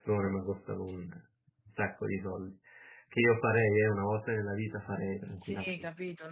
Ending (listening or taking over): taking over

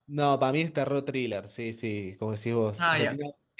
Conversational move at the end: listening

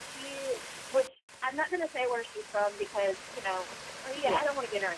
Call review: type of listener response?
listening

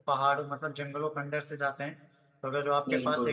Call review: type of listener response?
listening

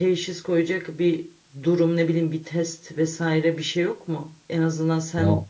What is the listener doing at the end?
listening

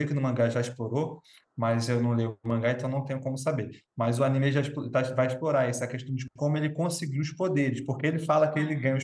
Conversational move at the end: listening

